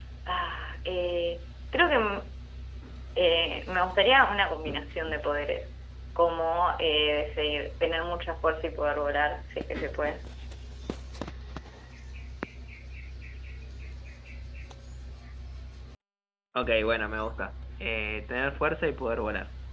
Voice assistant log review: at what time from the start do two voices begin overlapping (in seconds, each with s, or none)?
none